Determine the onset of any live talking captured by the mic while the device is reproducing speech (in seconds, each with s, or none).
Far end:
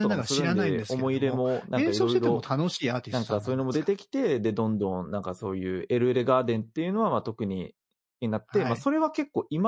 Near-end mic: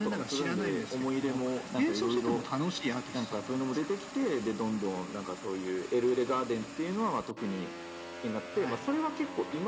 none